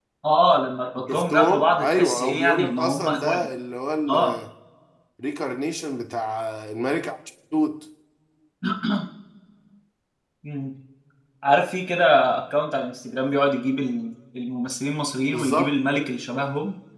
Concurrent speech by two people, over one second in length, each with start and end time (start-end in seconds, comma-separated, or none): 1.1-3.5